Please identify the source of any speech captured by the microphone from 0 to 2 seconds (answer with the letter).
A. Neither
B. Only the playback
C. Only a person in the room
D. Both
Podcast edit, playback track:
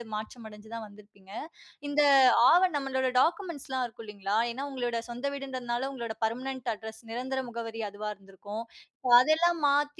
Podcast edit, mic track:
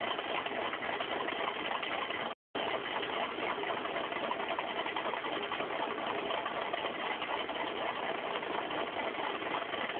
A